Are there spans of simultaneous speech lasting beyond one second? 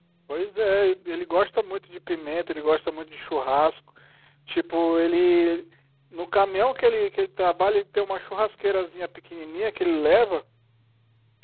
No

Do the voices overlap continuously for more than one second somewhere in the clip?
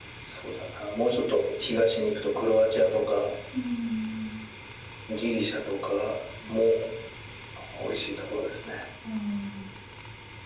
No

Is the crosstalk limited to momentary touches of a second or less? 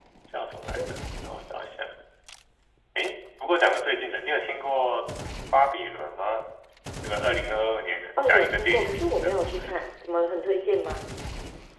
No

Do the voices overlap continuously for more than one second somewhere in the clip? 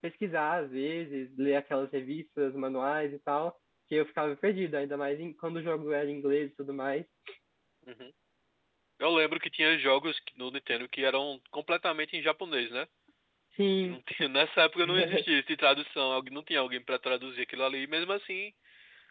No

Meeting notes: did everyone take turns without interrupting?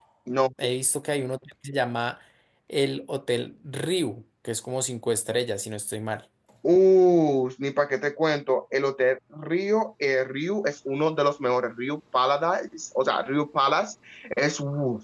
Yes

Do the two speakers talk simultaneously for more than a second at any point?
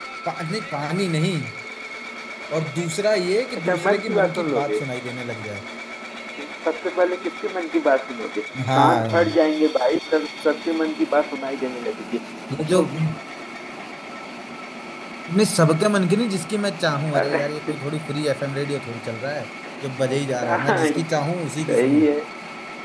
Yes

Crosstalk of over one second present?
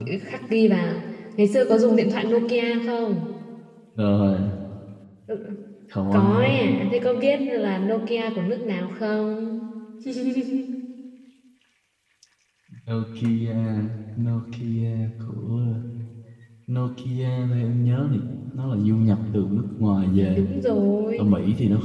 No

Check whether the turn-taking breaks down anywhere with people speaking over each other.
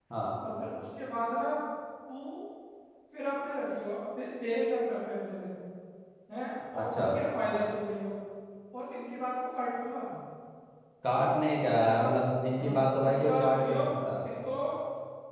Yes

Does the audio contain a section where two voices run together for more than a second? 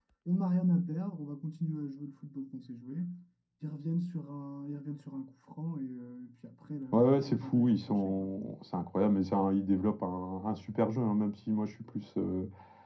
Yes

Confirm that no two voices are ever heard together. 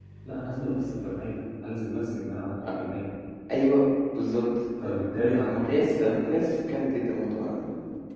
Yes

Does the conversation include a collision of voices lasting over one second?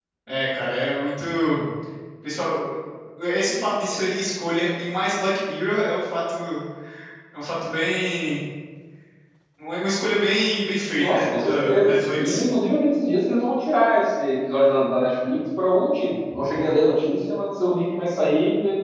Yes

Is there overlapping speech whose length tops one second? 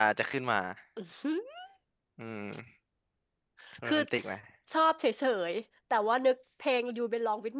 No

